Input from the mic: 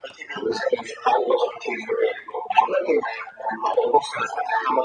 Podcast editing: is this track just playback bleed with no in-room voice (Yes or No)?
Yes